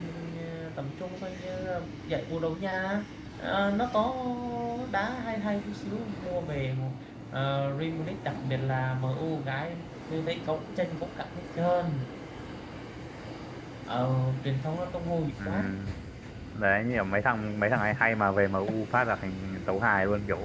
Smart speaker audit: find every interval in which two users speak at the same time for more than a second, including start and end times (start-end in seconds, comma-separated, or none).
none